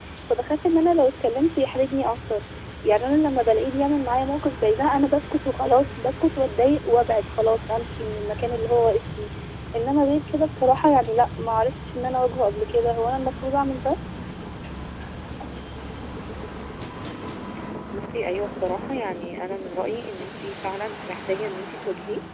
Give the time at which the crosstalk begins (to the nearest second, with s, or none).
none